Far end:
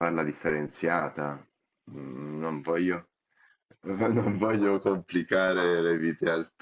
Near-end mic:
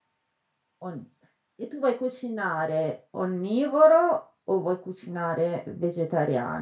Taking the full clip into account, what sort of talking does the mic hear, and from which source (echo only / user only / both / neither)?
user only